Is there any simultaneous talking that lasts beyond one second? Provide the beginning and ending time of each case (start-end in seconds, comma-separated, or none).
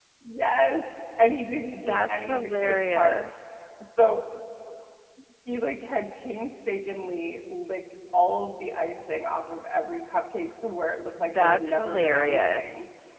1.7-3.3, 11.4-12.6